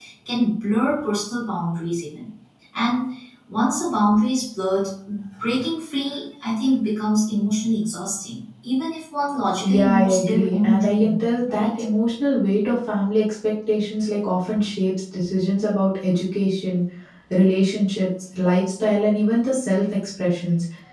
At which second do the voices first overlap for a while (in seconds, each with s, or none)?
9.6 s